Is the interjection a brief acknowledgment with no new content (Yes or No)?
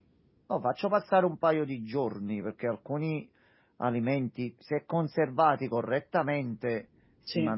Yes